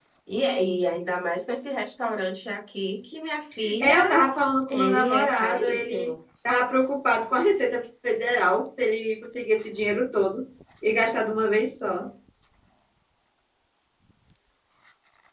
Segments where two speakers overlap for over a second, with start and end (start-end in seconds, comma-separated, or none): 4.7-6.2